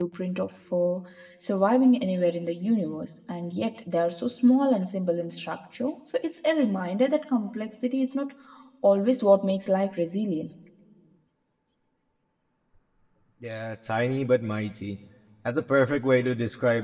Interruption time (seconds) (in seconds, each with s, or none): none